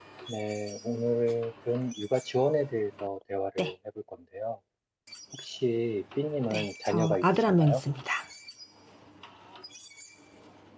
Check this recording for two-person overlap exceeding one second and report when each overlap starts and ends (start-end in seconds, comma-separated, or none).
6.5-7.8